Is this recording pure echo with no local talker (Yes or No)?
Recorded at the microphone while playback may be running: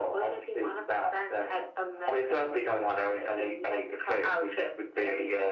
Yes